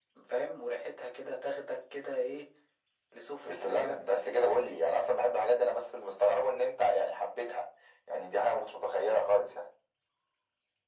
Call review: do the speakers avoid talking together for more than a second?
No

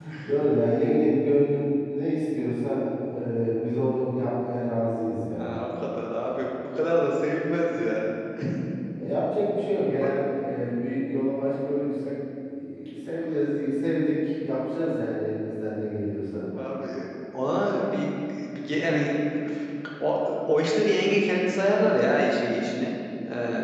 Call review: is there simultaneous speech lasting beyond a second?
No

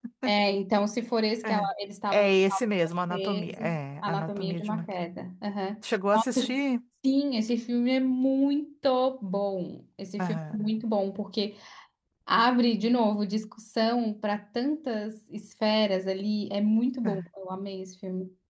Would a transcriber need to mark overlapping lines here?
Yes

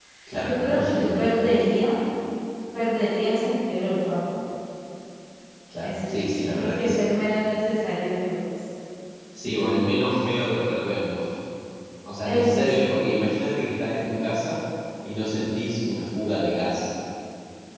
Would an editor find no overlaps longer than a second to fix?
No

